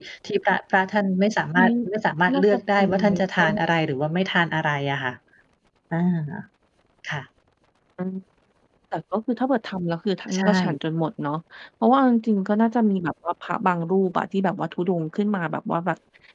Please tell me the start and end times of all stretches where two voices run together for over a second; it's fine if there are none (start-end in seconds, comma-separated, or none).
2.3-3.6